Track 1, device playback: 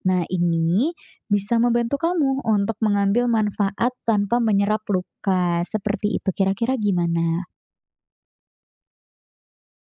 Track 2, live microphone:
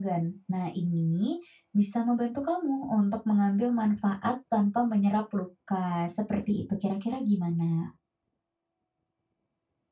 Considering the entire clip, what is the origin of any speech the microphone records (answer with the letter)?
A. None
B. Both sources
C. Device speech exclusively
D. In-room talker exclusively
C